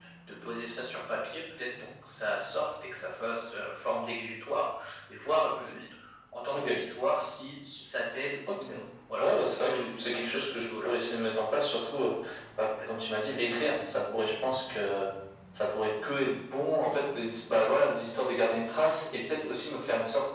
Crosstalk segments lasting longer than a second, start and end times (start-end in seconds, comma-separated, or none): 9.2-10.9